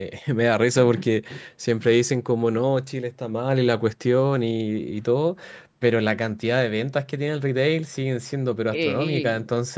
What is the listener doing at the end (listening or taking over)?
listening